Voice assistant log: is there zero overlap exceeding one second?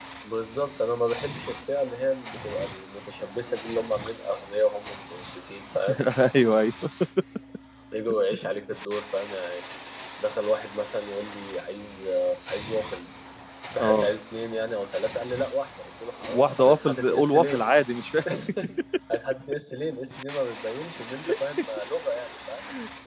No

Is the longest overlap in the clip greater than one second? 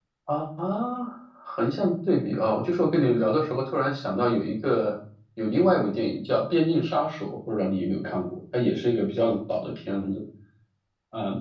No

